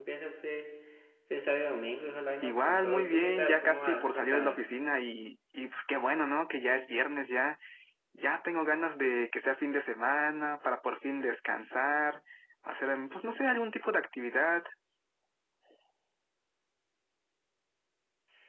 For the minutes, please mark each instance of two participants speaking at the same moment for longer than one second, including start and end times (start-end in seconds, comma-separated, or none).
2.4-4.6